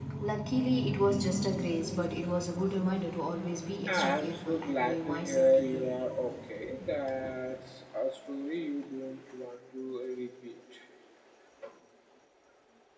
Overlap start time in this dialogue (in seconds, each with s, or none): 3.9 s